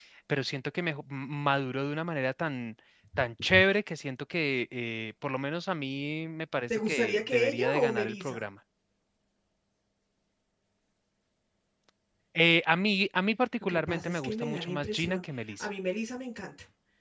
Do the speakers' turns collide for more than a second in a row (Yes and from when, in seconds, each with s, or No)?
Yes, from 6.7 s